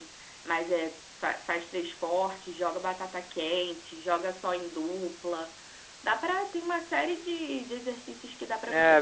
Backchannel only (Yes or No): No